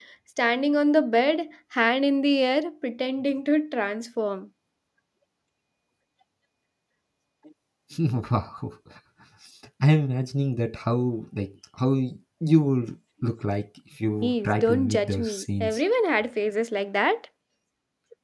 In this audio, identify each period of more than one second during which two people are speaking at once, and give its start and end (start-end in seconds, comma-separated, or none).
14.2-15.8